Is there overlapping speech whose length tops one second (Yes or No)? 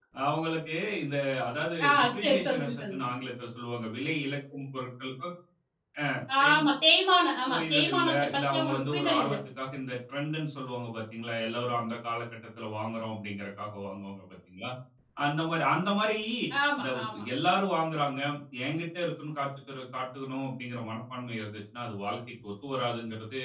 Yes